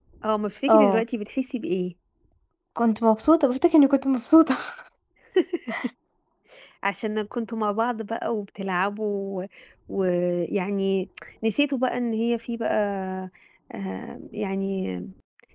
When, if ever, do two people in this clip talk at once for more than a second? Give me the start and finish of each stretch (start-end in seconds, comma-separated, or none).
none